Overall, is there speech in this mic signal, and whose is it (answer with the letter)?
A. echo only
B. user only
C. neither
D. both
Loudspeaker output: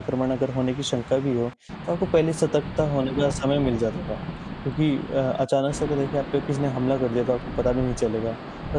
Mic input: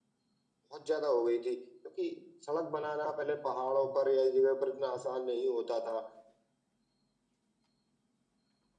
B